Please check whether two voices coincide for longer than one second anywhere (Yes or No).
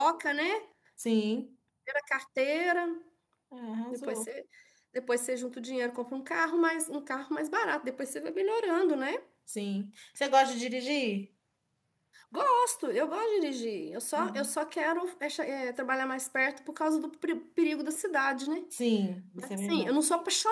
No